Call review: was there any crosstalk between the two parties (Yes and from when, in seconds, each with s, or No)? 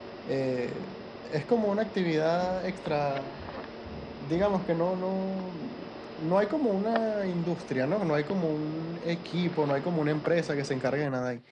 No